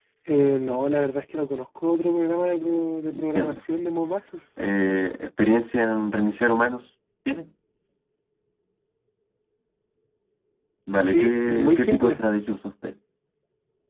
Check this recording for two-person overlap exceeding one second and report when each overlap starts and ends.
11.0-12.2

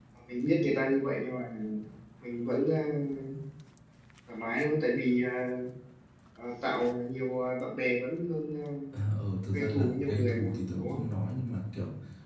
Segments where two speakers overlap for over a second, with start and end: 9.5-11.0

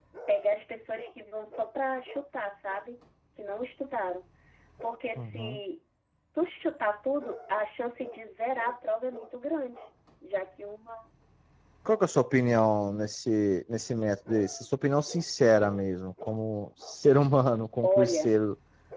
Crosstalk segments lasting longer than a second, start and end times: none

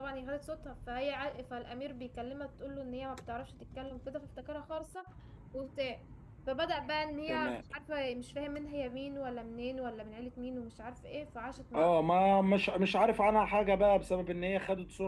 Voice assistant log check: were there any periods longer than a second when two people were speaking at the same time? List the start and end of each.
none

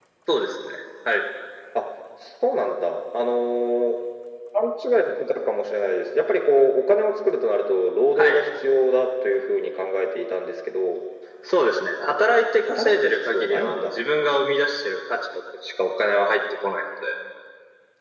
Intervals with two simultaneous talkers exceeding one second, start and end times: 12.7-13.9

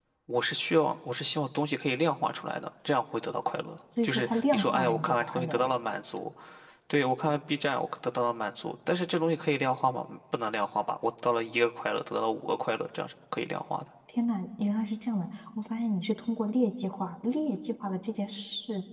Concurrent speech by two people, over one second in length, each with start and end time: 4.0-5.7

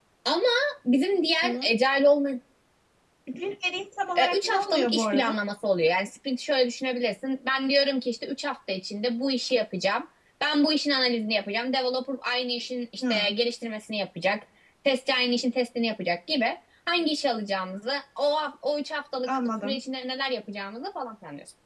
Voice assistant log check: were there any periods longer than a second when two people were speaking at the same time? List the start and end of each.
4.2-5.4

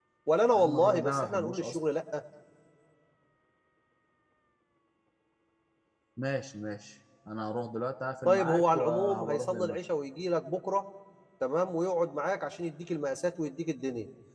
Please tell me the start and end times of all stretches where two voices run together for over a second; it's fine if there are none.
0.6-1.8, 8.2-9.8

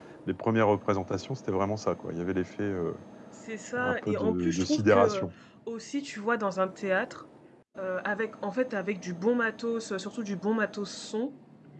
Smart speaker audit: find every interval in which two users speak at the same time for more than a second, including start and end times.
3.8-5.3

